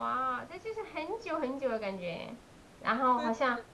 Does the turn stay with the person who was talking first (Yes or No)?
No